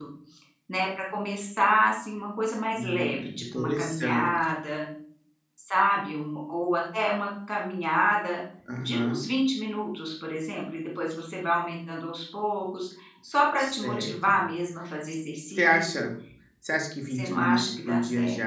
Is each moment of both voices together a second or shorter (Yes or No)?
No